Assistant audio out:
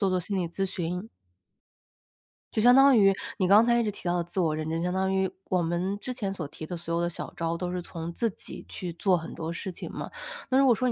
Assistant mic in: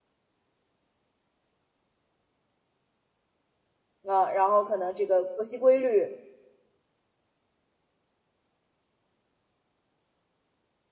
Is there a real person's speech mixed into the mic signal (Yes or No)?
Yes